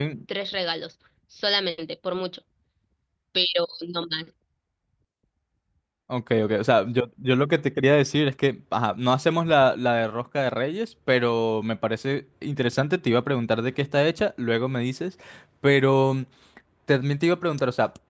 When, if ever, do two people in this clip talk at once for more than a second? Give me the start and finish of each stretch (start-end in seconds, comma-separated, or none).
none